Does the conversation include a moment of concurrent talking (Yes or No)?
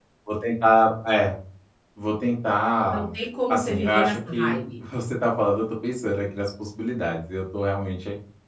Yes